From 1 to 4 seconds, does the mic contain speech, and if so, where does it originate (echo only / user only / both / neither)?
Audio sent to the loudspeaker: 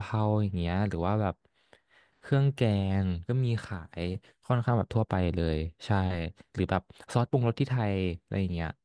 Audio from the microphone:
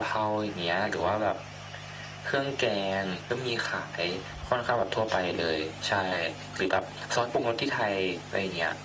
echo only